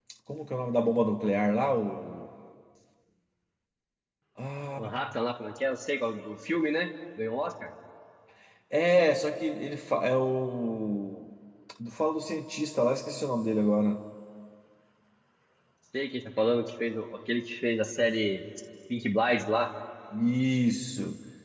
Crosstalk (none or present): none